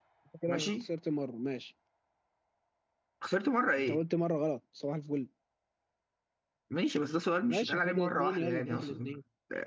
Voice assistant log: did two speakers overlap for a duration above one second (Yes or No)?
Yes